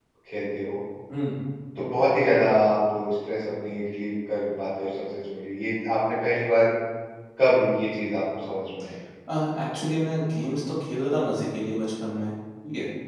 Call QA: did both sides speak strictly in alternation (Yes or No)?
Yes